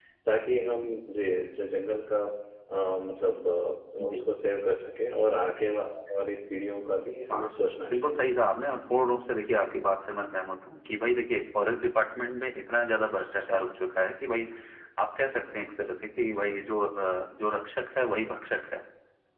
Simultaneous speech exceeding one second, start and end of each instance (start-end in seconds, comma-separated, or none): none